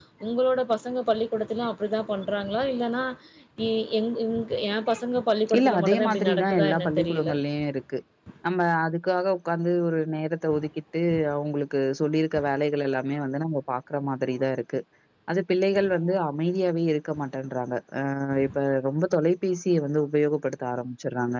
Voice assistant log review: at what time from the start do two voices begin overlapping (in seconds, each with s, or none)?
5.6 s